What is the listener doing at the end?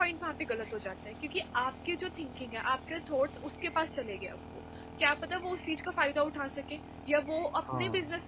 listening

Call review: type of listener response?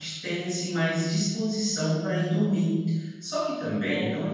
listening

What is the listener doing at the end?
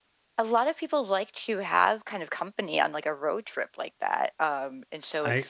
taking over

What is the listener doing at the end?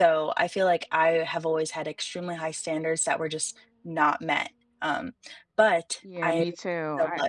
taking over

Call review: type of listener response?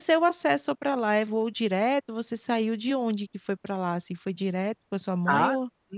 taking over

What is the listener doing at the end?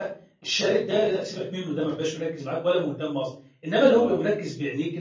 listening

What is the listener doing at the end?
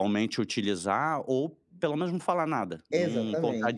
taking over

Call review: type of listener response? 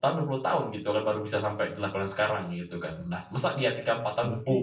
listening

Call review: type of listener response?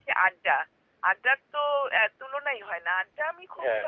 listening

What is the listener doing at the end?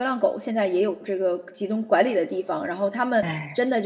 listening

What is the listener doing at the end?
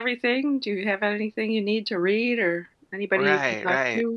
taking over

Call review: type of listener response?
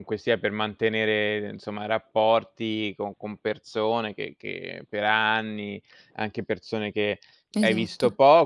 listening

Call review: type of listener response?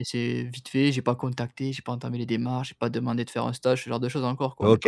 taking over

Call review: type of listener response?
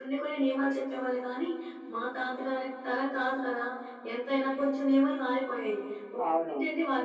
listening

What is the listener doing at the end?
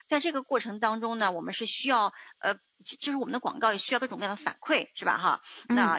listening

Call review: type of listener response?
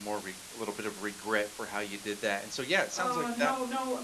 taking over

